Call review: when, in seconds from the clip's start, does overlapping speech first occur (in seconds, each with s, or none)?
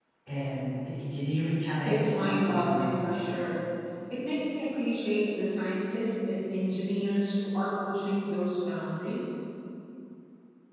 1.8 s